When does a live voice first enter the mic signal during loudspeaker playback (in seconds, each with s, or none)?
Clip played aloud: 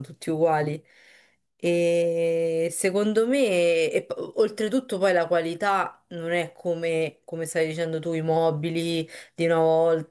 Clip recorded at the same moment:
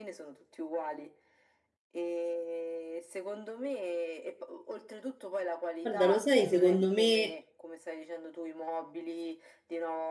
5.8 s